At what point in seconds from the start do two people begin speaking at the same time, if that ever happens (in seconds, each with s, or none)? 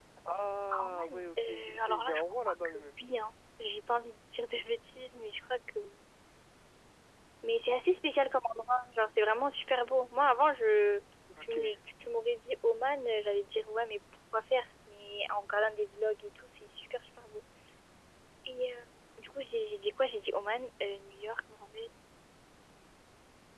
0.7 s